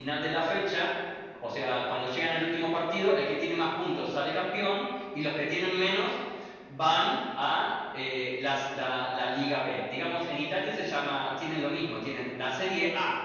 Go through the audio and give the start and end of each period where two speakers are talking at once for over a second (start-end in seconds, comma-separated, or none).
none